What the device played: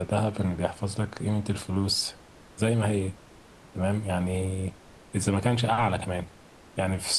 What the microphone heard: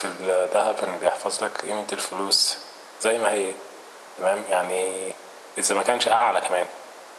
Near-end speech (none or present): none